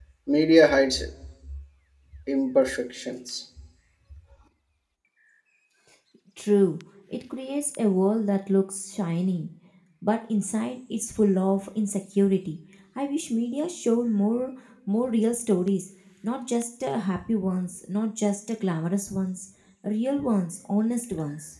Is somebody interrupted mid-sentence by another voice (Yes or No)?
No